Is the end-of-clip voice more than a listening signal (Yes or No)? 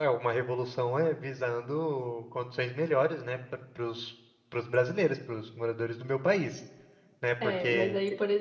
Yes